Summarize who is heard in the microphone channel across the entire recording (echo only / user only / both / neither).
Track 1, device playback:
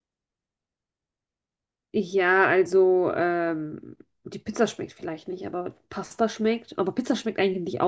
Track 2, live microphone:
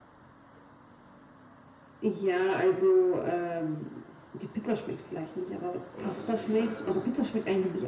both